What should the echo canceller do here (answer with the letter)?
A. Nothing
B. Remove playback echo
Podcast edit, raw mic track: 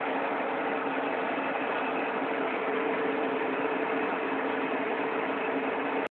A